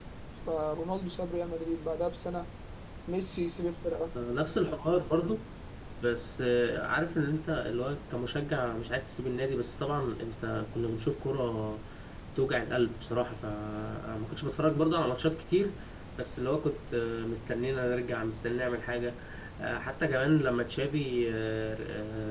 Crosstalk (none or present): none